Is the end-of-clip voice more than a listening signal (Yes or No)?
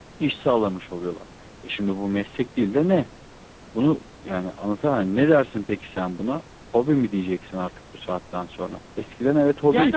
Yes